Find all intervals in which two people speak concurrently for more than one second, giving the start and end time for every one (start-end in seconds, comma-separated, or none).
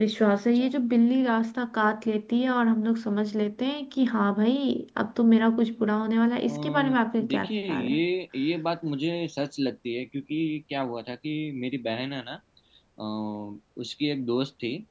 6.5-8.0